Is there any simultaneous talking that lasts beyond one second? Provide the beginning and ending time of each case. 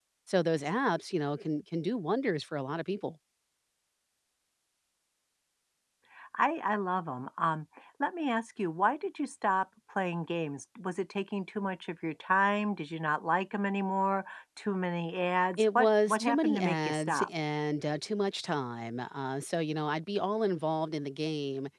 15.6-17.3

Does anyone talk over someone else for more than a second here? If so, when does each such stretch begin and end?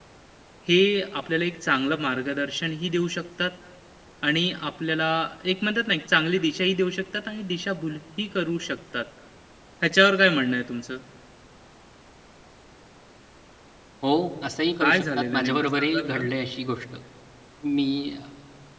14.8-16.2

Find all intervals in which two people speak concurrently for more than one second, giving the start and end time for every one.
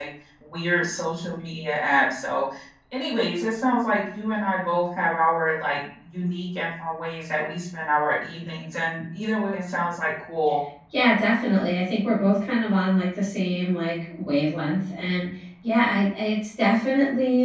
none

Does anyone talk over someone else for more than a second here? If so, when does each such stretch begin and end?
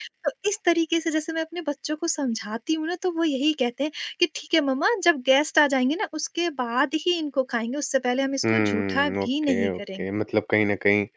8.4-10.1

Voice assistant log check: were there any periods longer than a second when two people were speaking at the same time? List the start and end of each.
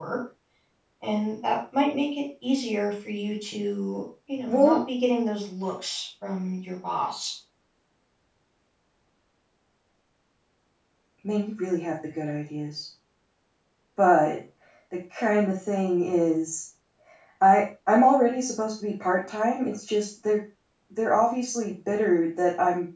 none

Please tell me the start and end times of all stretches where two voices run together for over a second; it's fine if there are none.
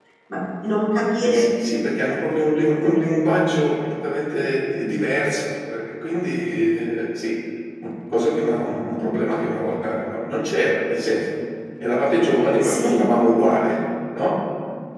none

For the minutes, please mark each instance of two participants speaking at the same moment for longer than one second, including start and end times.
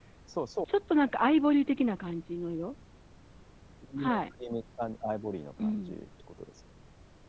none

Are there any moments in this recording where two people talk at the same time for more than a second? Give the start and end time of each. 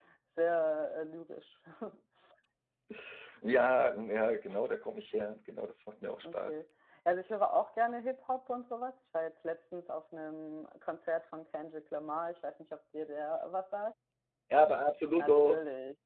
none

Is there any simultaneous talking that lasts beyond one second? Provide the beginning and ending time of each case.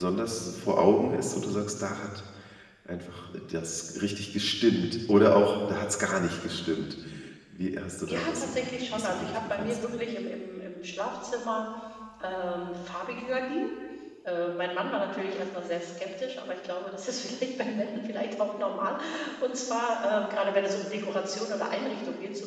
8.1-9.8

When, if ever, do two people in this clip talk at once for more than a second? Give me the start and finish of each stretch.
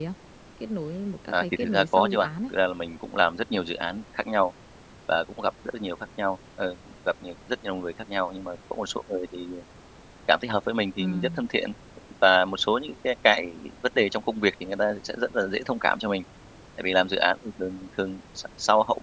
1.3-2.5

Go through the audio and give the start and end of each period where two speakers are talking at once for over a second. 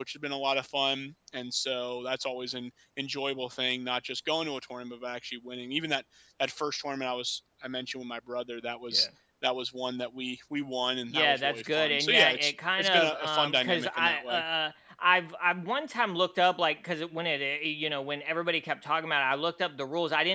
11.1-14.4

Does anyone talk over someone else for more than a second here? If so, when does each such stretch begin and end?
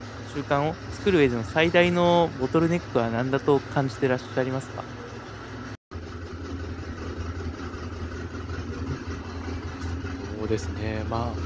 none

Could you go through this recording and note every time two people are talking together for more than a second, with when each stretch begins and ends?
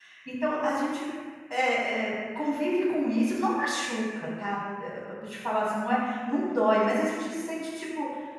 none

